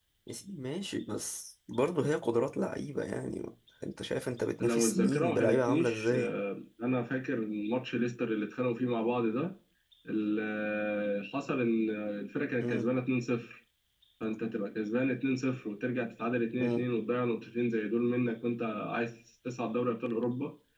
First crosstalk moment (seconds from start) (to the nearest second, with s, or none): 5 s